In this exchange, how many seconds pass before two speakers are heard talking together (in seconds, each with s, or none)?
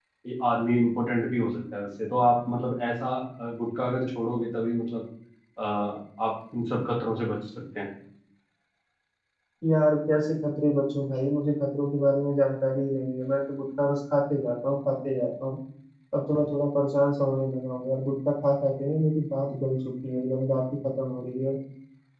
none